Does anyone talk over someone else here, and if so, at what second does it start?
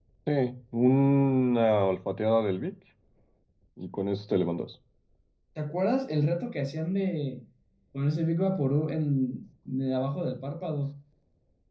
none

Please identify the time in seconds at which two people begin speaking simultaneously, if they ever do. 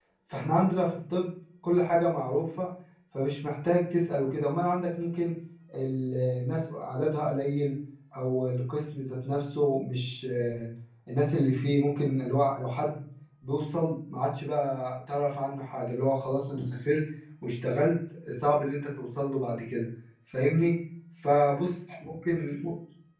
none

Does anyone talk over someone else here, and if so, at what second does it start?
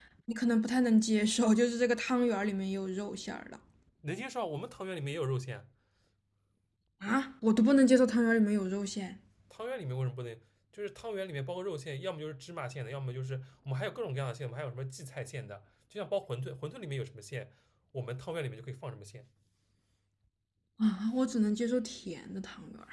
none

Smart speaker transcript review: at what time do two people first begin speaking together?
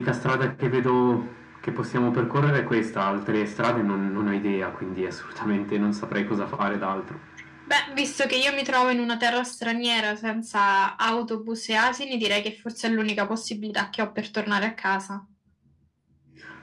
none

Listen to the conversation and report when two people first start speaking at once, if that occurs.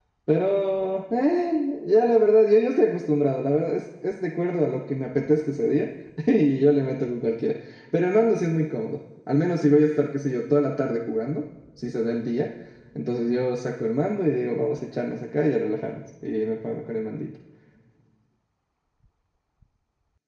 none

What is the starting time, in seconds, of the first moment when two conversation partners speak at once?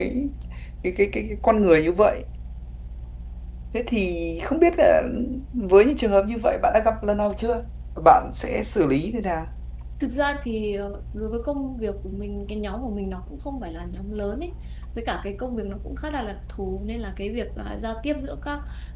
none

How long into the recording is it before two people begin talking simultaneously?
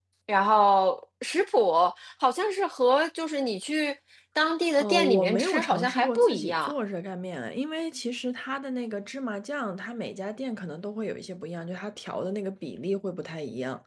4.8 s

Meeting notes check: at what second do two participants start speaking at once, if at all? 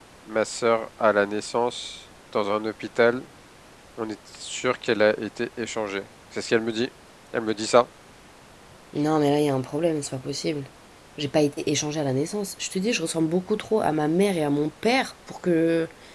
none

